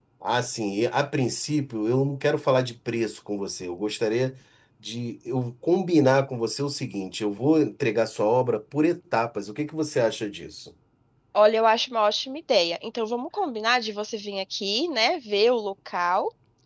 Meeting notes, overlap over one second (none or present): none